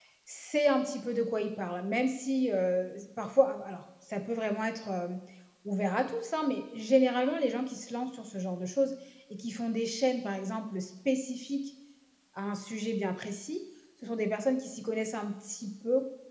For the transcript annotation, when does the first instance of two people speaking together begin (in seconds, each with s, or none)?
none